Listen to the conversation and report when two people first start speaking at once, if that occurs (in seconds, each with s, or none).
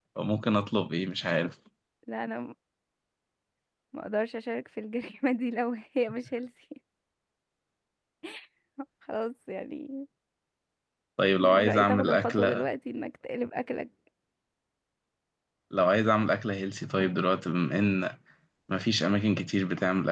11.4 s